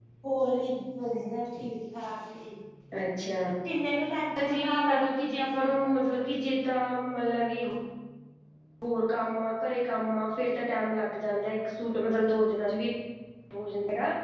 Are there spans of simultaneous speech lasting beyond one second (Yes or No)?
Yes